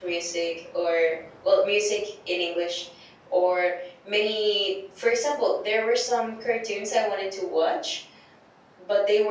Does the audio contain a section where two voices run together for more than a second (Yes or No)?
No